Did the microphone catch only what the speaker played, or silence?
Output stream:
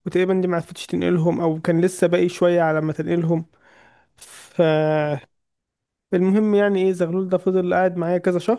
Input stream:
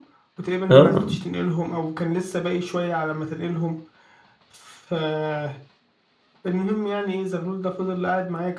No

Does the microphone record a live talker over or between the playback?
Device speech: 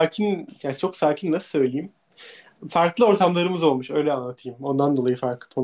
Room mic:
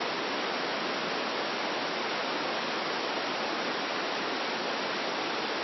No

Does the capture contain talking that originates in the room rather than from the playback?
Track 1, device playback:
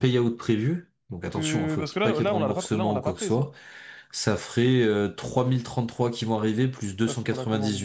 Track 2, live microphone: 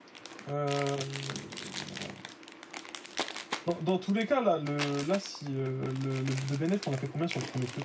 Yes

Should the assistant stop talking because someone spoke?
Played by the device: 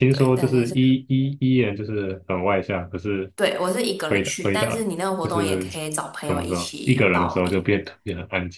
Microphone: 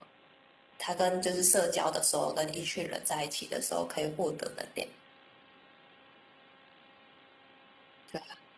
Yes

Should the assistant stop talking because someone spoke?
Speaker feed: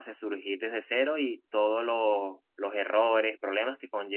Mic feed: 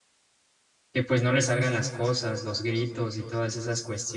Yes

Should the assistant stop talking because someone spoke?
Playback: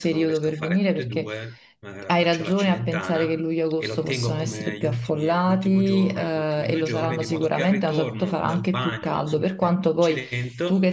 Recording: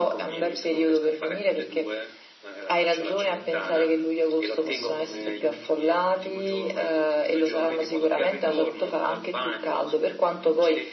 No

